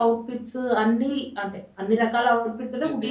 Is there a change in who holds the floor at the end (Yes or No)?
No